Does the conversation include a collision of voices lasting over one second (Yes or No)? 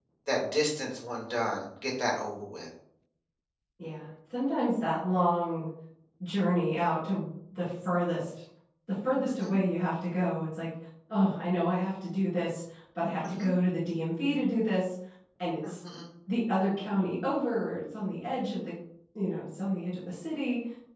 No